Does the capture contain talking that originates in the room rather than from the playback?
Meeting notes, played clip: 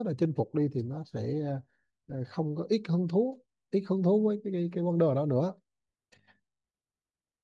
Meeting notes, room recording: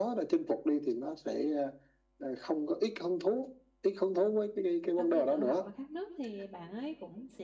Yes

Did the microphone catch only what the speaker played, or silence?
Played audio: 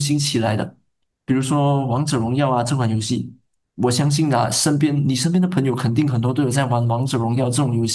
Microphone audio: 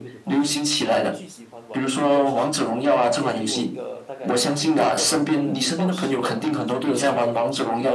No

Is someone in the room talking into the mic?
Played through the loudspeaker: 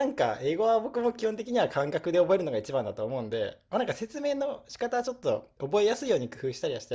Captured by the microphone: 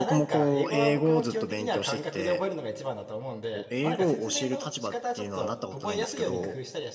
Yes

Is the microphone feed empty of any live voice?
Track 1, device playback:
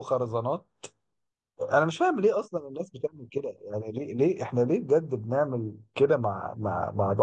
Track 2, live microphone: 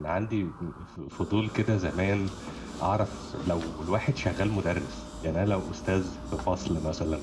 No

